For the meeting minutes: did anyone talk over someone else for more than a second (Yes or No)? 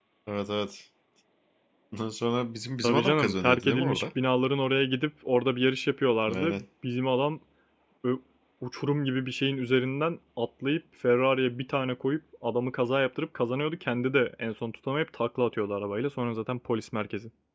Yes